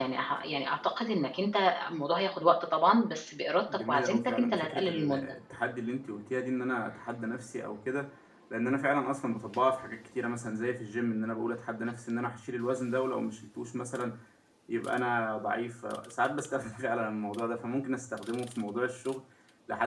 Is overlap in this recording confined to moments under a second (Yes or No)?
No